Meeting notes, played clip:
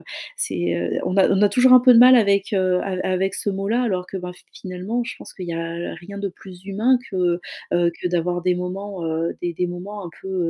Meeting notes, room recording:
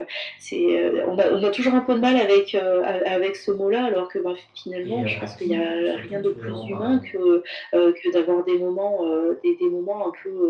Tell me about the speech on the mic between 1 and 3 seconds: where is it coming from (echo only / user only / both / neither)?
echo only